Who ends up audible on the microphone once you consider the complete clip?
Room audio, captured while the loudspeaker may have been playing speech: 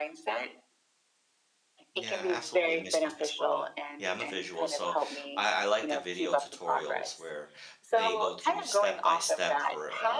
both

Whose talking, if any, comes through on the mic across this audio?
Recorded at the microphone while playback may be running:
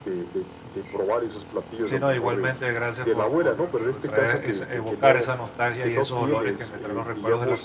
both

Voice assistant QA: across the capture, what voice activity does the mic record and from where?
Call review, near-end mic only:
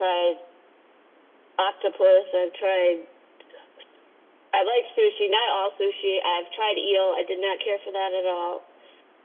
echo only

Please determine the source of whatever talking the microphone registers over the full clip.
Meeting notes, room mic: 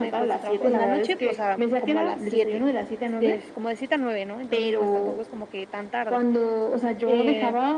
both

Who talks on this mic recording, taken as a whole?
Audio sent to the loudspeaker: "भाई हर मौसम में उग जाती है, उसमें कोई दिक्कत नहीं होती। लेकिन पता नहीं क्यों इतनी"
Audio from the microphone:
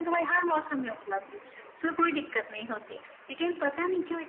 echo only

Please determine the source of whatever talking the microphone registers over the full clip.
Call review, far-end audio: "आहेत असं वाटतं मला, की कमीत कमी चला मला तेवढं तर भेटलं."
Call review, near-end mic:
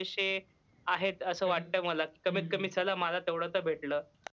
both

